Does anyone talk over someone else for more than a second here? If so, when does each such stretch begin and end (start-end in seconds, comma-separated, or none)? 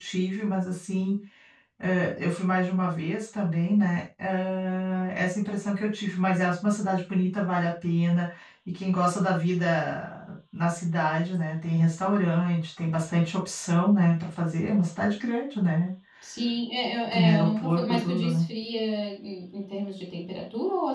17.1-18.4